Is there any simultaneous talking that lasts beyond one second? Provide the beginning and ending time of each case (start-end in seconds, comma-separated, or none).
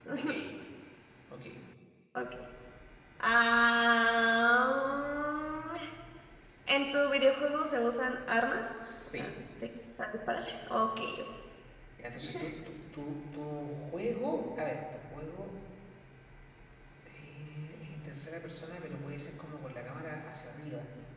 none